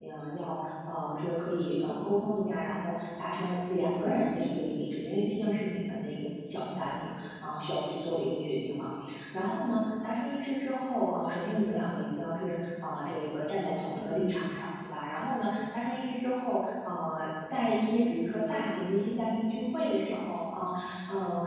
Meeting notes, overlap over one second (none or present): none